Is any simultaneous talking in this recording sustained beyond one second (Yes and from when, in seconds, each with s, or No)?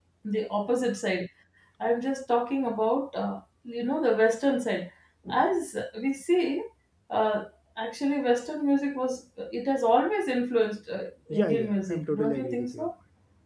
Yes, from 11.3 s